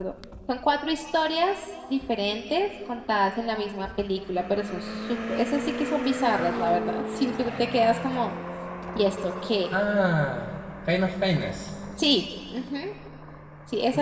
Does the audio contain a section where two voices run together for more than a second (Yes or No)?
No